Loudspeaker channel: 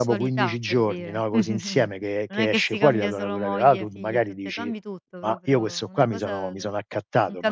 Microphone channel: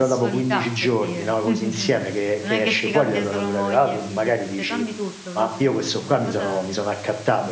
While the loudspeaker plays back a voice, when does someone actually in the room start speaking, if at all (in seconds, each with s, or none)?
none